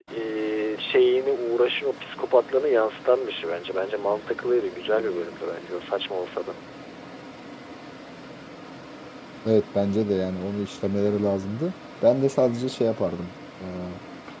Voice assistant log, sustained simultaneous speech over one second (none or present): none